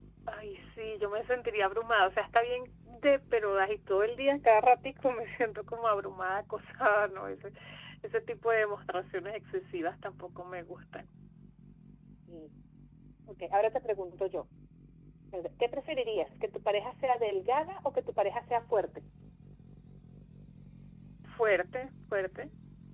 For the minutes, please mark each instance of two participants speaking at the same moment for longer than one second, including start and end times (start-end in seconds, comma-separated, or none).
none